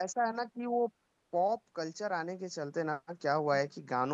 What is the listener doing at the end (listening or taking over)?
listening